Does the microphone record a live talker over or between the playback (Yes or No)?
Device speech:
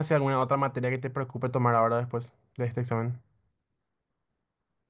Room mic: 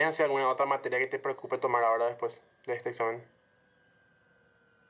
No